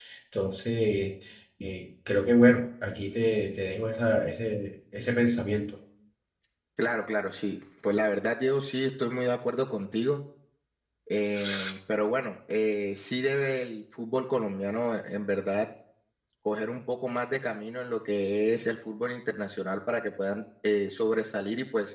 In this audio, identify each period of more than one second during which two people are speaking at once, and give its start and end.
none

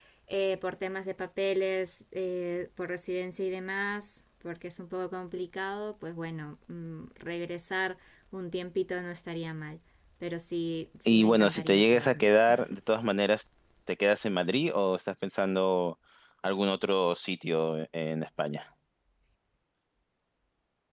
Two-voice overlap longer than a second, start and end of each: 11.1-12.3

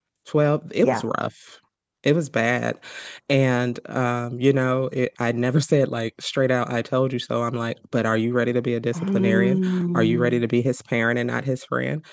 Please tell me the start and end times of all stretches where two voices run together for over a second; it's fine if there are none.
8.9-10.4

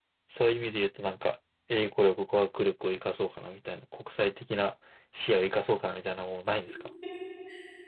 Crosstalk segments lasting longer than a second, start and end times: none

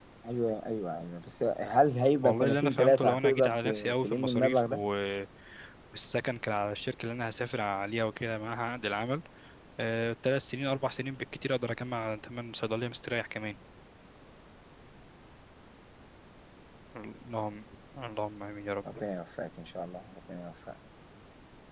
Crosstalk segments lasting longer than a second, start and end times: 2.2-4.8

